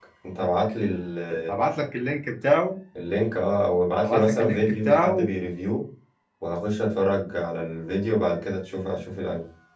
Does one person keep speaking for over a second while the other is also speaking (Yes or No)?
Yes